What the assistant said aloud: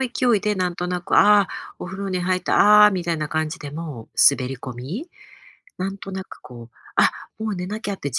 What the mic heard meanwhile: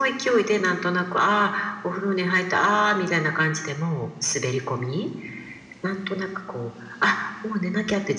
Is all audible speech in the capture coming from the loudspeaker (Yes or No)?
Yes